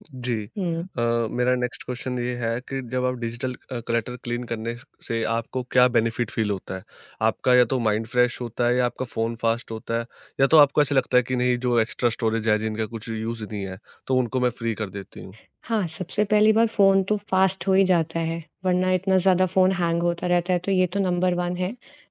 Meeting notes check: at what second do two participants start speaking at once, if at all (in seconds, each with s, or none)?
none